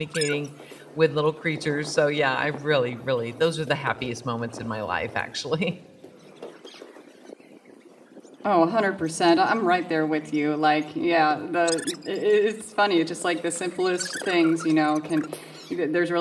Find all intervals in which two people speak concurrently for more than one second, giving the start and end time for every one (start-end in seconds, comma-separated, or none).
none